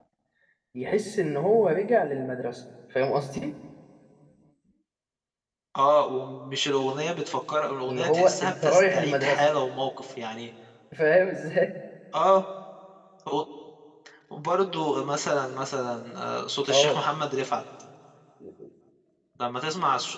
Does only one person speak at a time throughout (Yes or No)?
No